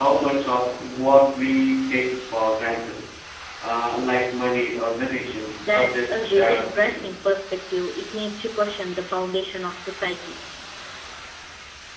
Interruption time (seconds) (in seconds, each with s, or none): 5.6 s